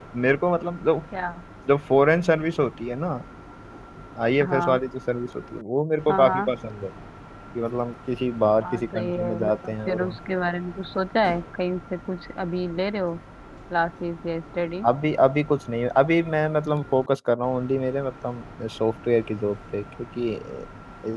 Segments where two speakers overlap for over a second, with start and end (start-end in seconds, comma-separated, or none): 8.6-10.2